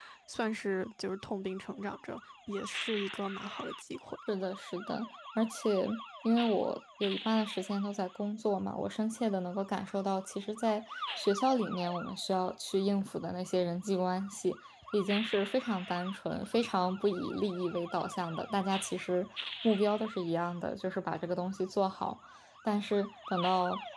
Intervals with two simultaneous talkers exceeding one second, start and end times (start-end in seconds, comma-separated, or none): none